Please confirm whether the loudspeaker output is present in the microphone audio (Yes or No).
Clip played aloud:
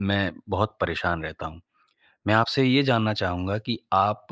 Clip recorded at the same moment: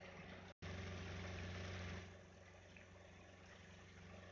No